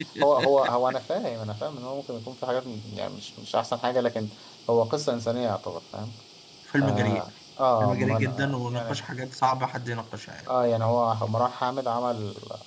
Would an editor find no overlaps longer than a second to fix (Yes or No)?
No